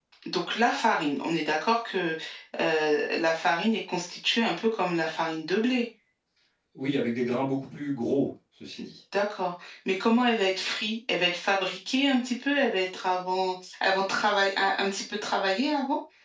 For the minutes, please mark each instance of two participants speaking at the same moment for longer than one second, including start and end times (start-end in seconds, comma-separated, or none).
none